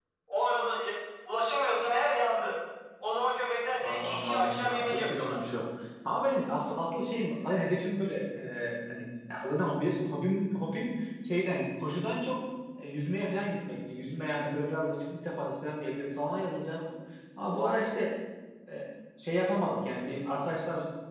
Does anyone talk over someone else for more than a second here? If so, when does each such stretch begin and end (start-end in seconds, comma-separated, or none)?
3.8-5.4